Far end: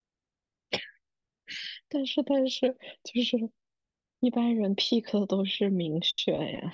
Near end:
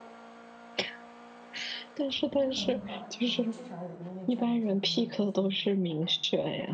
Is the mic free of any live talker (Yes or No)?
No